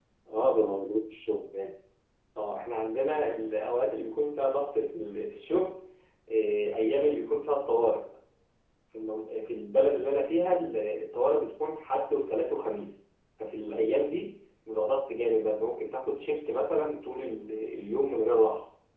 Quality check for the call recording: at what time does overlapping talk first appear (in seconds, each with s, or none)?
none